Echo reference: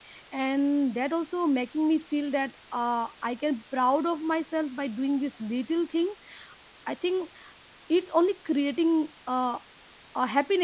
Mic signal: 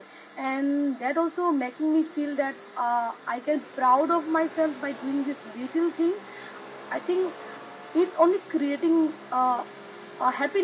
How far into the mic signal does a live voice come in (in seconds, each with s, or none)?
none